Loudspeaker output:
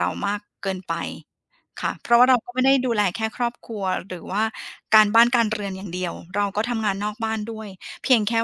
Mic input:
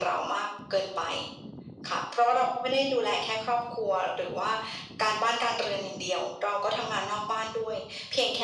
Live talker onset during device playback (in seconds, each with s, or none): none